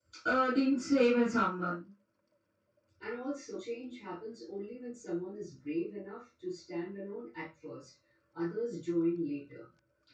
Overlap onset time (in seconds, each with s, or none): none